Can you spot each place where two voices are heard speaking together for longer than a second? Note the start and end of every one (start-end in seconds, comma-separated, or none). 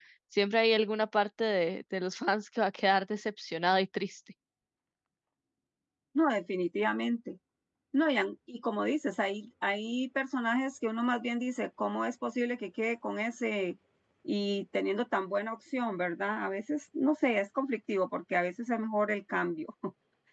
none